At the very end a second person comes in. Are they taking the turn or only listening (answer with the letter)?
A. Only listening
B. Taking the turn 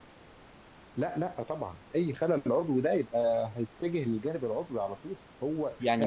B